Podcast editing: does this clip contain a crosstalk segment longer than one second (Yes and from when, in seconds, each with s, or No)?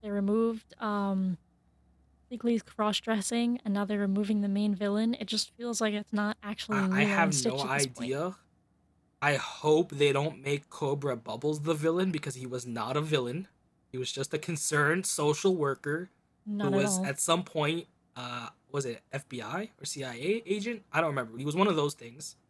Yes, from 6.7 s